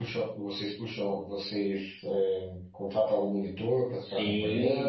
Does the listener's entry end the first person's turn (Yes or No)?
Yes